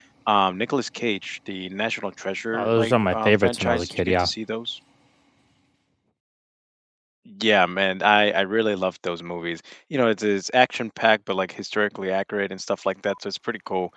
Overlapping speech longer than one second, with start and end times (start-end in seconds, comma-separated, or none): 2.5-4.3